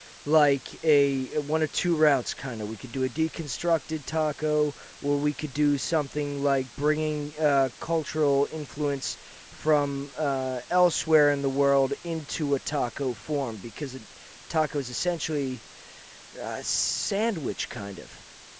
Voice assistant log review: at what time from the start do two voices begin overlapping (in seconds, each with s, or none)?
none